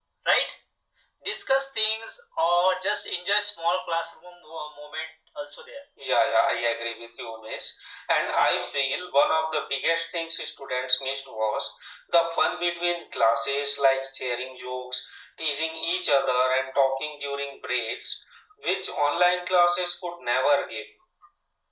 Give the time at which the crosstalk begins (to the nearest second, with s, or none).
none